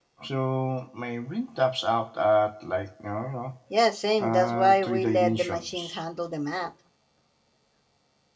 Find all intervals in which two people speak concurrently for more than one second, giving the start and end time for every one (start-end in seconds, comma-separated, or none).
4.2-6.0